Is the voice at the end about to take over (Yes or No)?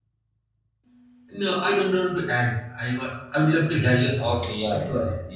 Yes